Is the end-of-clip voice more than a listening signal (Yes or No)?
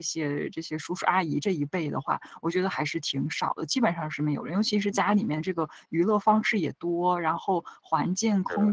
No